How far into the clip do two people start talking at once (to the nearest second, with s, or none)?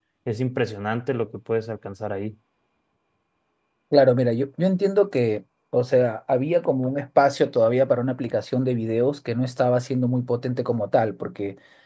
none